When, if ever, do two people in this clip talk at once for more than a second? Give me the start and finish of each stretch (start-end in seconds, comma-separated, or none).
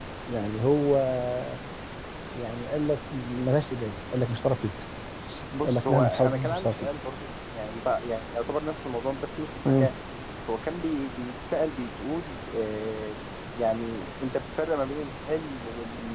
5.6-6.9